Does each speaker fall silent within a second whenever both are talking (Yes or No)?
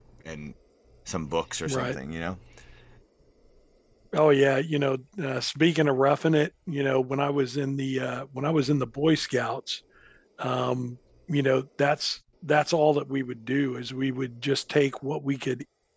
Yes